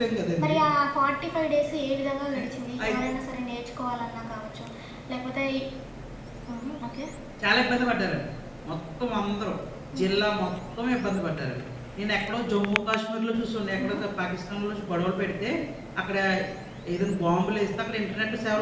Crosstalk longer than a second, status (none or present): none